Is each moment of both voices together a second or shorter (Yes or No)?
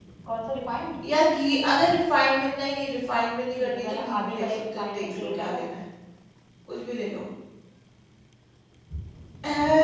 No